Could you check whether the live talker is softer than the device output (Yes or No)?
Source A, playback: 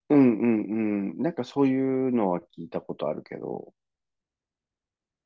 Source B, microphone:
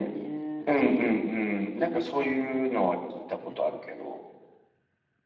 Yes